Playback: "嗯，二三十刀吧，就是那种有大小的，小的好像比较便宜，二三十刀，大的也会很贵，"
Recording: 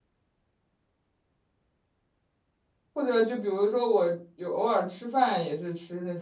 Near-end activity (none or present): present